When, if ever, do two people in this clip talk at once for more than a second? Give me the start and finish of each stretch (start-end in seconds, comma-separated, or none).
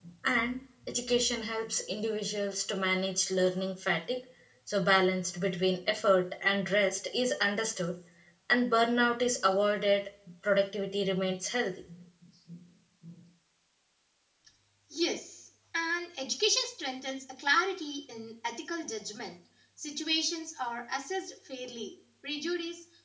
none